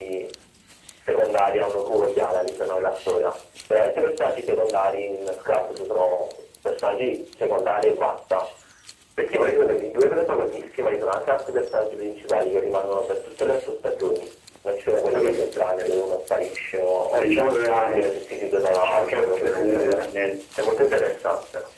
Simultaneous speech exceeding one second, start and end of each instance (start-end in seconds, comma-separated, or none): 18.7-20.1